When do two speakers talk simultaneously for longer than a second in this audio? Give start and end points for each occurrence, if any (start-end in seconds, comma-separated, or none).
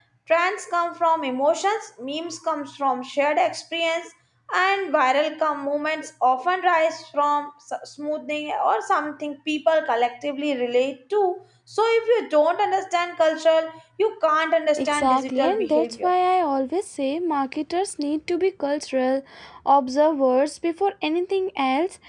14.8-16.1